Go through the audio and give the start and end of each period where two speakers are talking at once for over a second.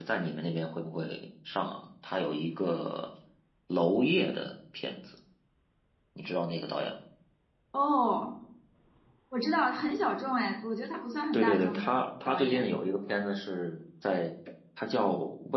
11.3-12.7

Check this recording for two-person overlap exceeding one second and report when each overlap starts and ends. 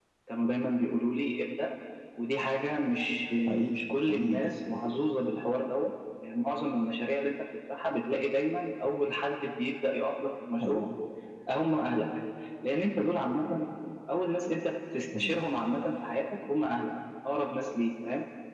3.5-4.8

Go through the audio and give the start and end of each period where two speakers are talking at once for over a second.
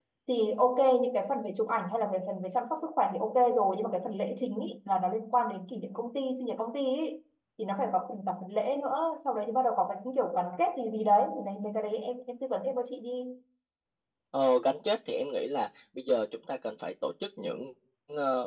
none

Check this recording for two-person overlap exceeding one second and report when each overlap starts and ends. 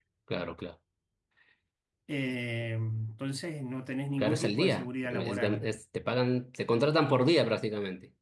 4.2-5.6

